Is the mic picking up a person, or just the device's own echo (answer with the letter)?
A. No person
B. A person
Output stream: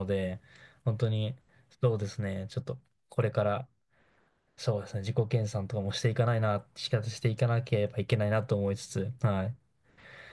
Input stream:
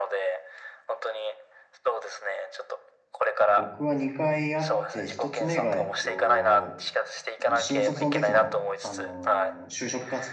B